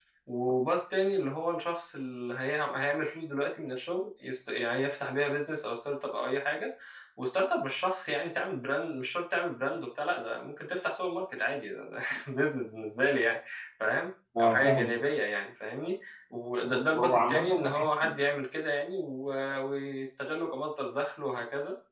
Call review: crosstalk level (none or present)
present